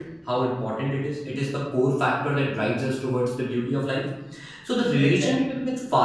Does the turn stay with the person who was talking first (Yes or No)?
Yes